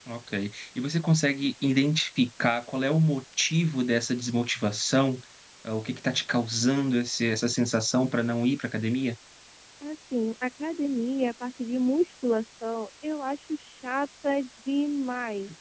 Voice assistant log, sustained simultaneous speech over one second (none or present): none